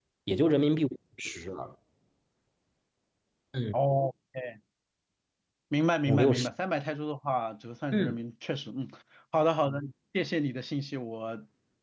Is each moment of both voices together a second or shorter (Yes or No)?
Yes